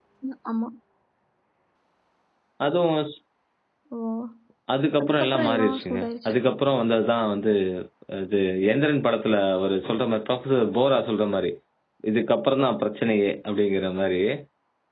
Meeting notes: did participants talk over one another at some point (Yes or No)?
Yes